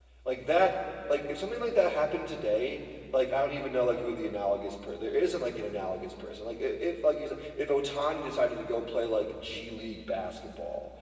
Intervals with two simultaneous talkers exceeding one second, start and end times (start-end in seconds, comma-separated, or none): none